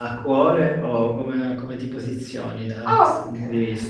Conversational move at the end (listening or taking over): taking over